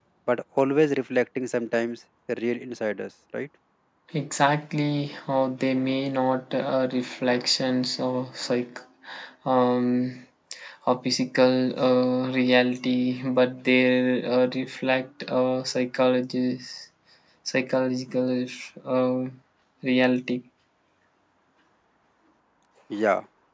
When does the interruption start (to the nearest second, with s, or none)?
none